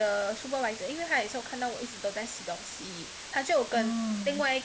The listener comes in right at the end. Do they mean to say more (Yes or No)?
No